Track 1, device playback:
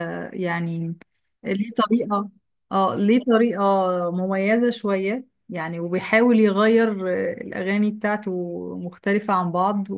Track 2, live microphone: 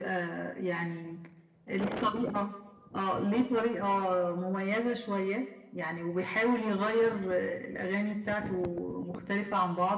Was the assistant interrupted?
No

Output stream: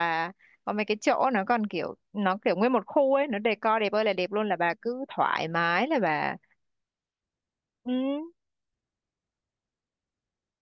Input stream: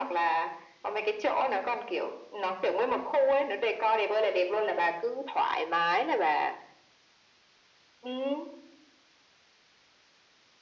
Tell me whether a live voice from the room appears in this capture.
No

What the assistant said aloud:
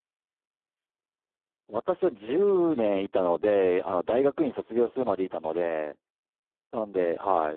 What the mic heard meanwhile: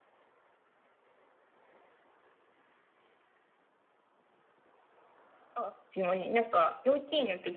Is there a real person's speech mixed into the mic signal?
Yes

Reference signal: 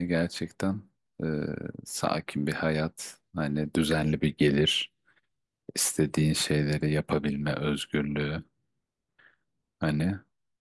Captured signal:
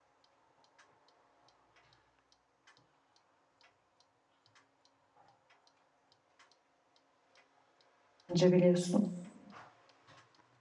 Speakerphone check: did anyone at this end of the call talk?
Yes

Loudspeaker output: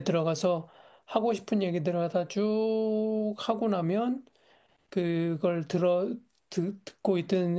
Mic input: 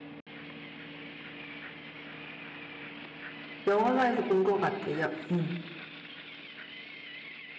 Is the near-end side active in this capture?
Yes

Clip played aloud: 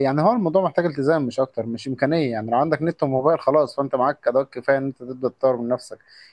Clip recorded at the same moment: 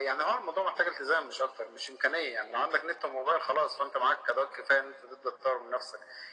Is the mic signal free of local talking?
Yes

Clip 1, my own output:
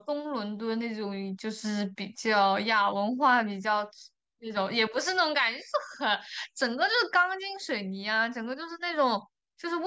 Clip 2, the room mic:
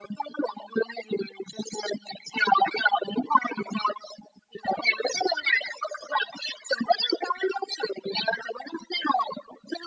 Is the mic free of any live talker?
Yes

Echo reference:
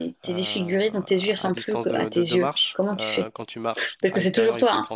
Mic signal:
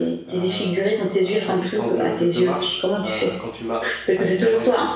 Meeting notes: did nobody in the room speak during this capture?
Yes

